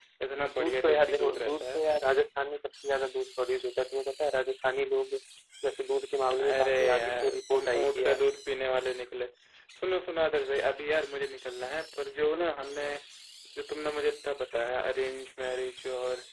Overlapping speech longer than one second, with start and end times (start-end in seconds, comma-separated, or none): 0.6-1.8, 6.4-8.2